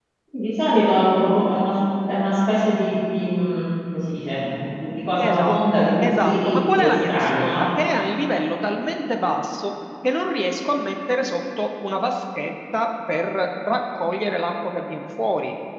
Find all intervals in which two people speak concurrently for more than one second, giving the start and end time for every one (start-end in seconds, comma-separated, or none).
5.2-7.7